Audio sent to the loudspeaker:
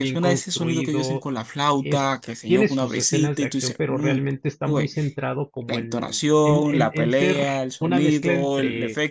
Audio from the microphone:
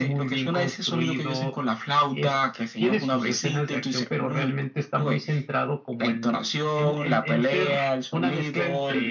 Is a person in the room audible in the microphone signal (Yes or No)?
No